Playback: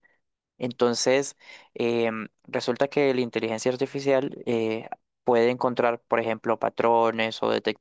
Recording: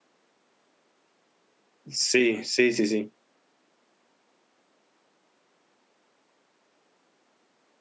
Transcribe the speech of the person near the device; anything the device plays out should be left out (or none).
sí, sí, sí, sí.